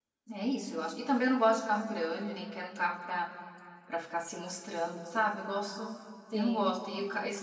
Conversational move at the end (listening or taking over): listening